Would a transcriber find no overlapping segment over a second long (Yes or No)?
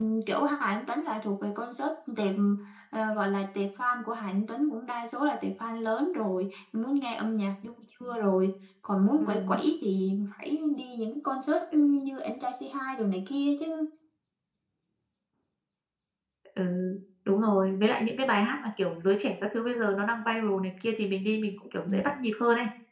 Yes